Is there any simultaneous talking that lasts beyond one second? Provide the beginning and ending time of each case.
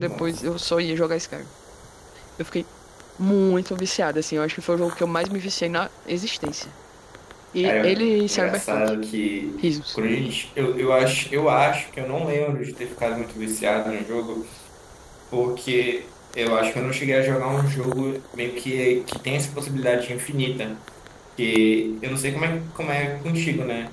7.6-8.8

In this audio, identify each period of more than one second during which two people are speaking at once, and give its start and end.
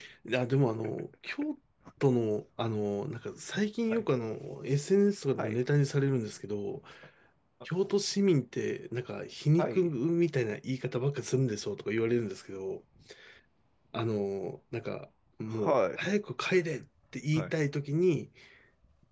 none

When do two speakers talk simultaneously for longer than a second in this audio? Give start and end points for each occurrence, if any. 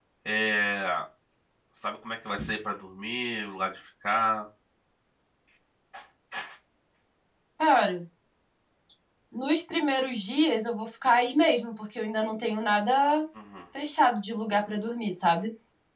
none

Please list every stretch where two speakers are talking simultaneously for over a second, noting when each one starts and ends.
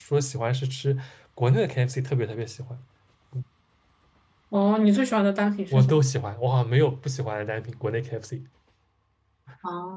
none

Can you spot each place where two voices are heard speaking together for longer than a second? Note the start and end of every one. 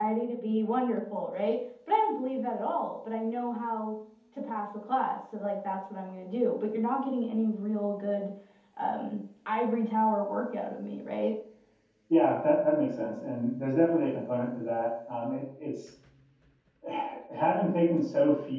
none

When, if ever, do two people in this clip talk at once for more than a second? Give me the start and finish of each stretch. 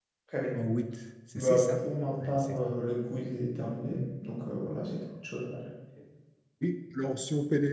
none

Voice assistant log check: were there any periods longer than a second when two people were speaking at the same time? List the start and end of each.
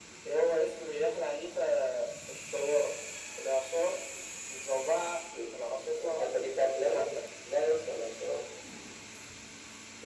none

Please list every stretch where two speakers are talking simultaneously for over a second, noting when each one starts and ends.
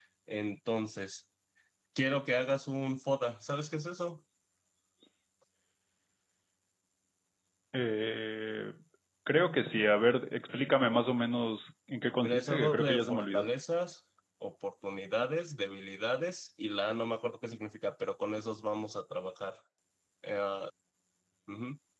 12.2-13.4

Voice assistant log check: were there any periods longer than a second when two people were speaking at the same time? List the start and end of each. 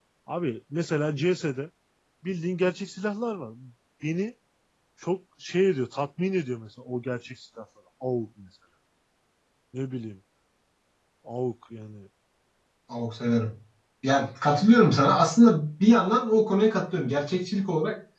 none

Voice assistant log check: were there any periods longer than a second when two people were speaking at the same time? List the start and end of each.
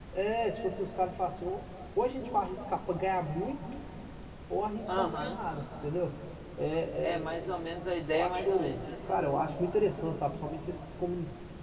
8.1-9.6

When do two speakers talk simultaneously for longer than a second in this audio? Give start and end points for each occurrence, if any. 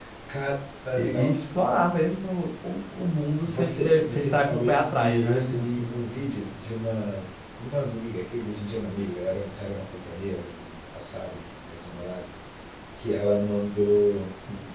3.5-5.9

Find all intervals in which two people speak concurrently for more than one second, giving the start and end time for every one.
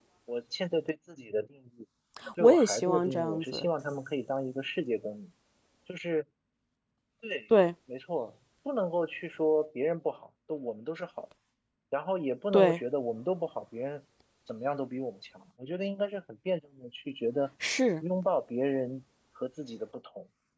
2.4-3.7

